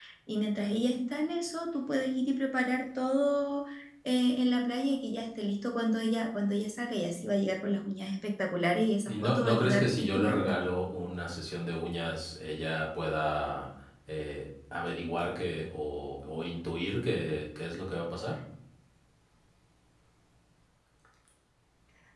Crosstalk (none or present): present